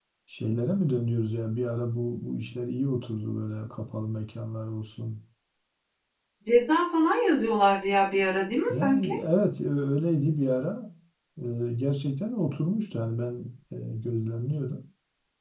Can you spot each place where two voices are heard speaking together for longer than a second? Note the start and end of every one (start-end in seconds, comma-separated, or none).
none